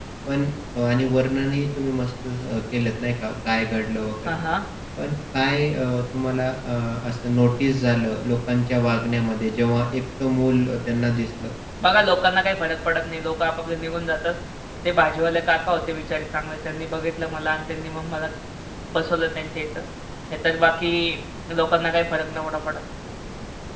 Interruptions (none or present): none